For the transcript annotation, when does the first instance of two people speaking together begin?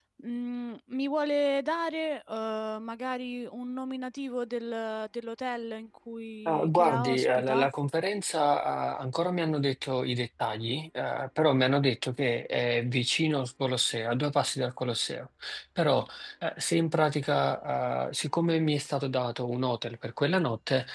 6.5 s

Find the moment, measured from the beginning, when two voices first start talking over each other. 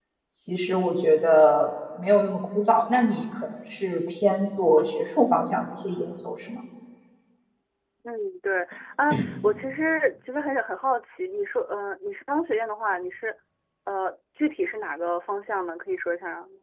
none

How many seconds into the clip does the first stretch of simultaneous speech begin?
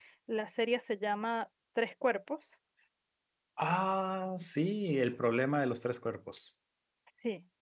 none

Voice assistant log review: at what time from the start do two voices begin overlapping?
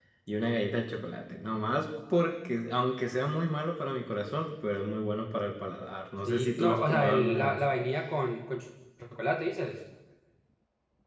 6.2 s

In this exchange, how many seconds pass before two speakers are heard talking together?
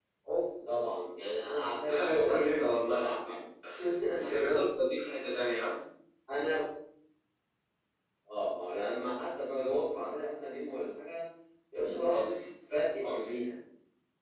1.9 s

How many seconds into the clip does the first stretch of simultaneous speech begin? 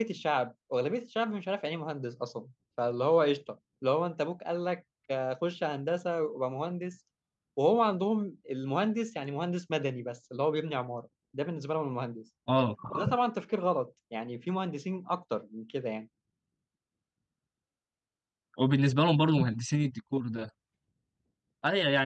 none

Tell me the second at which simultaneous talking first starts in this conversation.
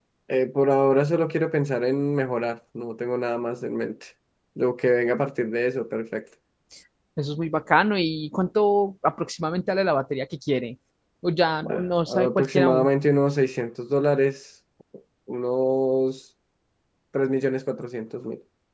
11.6 s

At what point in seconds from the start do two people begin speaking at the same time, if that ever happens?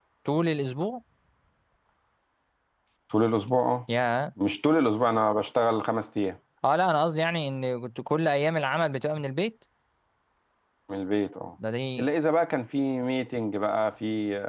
none

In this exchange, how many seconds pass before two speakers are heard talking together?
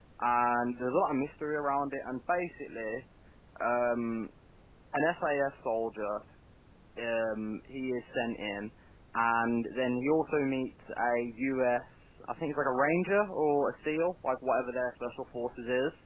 none

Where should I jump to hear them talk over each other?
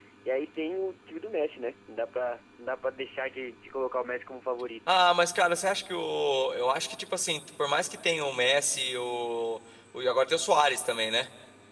none

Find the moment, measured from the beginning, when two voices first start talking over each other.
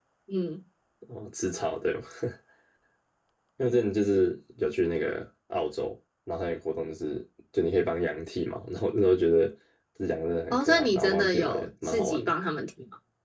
10.5 s

